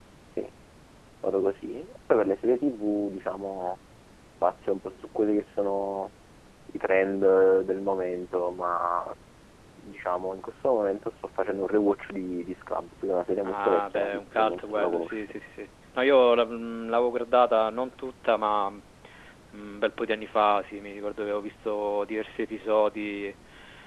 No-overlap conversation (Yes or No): No